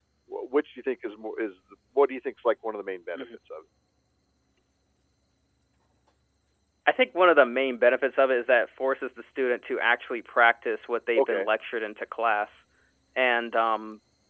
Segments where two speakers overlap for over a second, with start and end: none

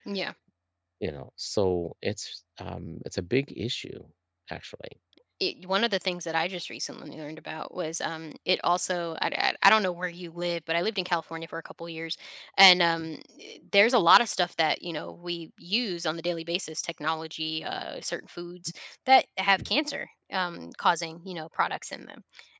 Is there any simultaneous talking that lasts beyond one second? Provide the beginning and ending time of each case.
none

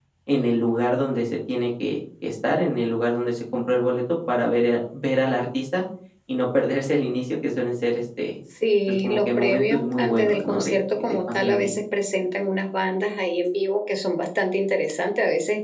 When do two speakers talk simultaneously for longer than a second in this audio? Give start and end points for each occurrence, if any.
8.9-11.7

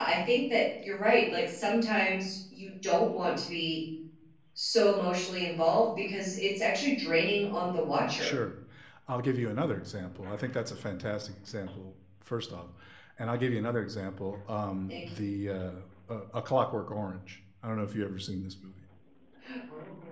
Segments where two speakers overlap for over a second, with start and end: none

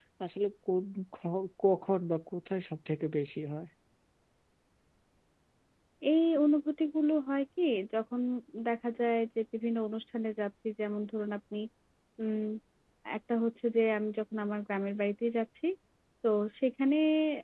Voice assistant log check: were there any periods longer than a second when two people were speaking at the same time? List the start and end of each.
none

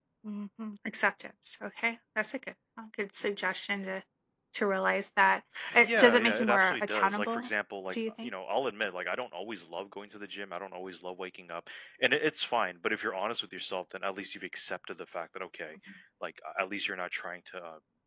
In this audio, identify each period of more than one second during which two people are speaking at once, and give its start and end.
5.8-7.5

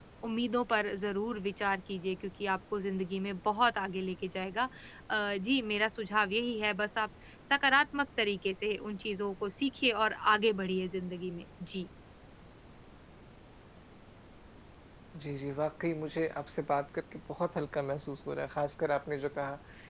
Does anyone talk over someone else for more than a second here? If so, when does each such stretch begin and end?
none

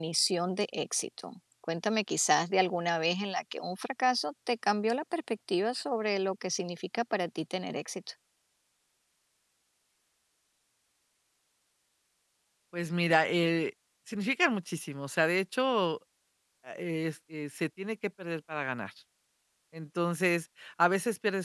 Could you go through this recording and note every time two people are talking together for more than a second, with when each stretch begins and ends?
none

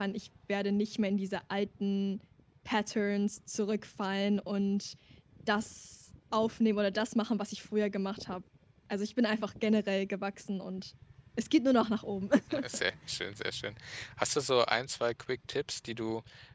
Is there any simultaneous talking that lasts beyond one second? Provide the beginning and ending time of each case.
none

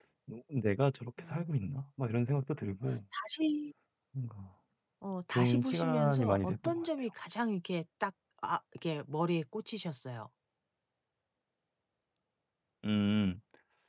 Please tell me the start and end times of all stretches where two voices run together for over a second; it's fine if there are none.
5.3-7.1

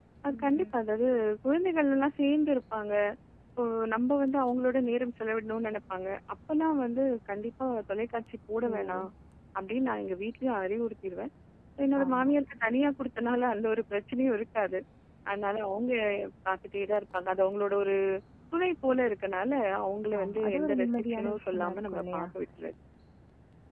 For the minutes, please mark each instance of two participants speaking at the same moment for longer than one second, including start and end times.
20.2-22.3

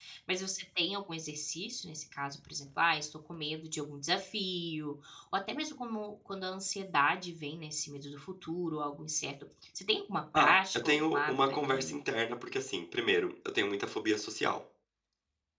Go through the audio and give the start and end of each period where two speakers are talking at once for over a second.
10.4-12.0

